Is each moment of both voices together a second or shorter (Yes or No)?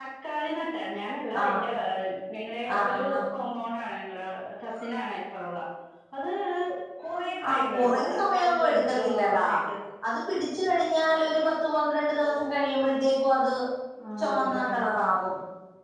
No